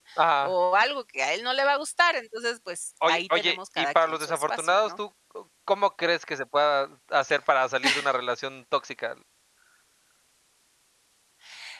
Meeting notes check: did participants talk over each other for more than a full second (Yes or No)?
Yes